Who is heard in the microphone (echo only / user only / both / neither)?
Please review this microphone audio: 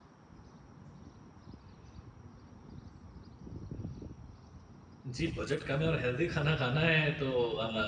user only